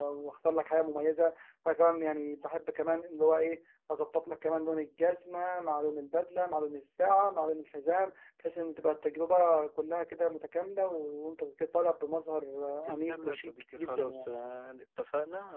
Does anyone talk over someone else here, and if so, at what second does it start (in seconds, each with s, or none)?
12.9 s